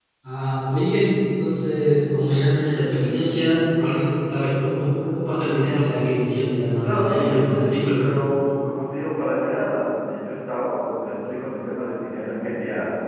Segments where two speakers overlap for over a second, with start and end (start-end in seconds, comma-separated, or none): 6.8-8.1